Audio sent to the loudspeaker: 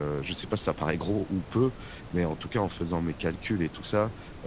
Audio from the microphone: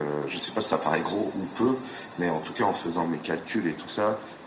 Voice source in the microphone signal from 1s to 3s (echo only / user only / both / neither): echo only